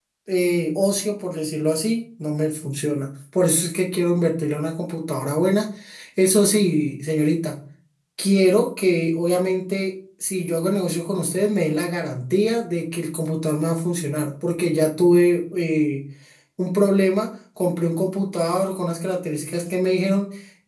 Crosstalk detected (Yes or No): No